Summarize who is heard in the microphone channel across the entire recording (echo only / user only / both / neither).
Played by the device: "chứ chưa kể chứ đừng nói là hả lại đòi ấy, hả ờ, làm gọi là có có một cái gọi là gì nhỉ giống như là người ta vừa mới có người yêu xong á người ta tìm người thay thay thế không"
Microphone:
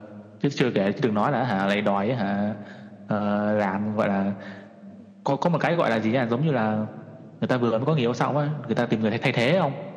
echo only